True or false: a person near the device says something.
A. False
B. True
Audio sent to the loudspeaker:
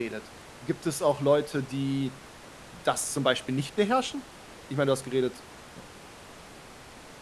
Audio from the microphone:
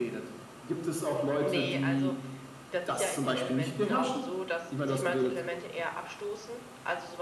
B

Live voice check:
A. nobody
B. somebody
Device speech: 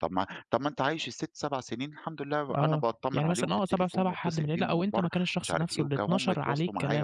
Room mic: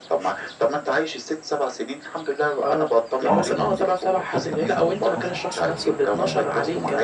B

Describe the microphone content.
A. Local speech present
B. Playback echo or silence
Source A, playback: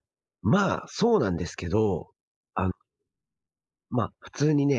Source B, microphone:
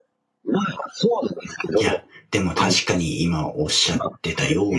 A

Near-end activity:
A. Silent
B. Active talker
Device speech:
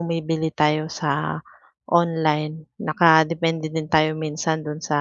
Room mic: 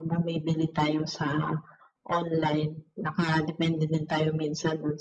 A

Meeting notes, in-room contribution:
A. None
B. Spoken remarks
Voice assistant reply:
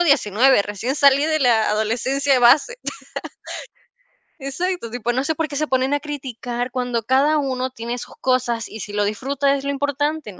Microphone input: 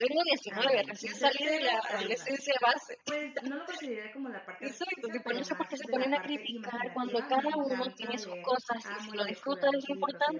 B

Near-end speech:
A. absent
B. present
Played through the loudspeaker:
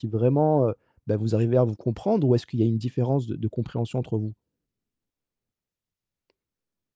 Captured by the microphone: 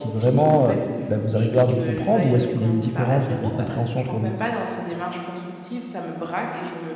B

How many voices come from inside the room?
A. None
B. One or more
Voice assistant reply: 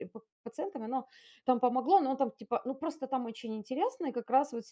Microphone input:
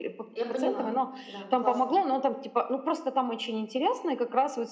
B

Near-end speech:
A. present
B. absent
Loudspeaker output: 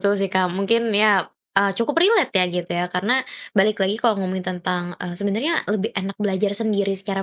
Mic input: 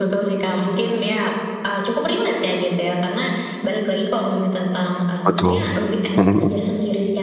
A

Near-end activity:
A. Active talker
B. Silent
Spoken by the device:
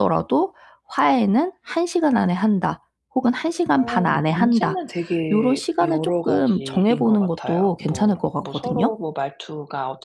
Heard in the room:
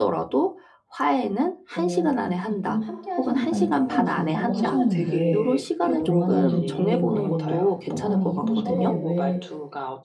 A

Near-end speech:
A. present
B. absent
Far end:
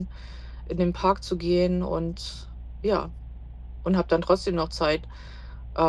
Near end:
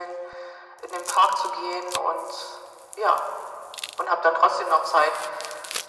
B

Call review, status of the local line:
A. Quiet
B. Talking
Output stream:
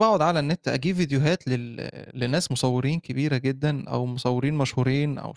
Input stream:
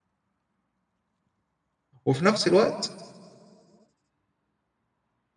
B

